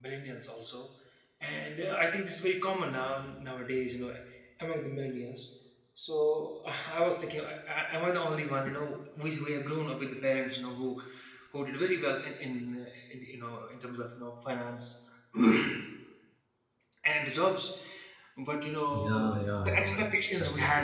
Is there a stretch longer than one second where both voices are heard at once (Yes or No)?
Yes